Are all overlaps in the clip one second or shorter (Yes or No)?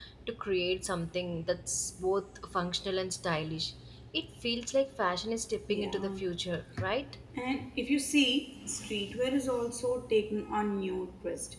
Yes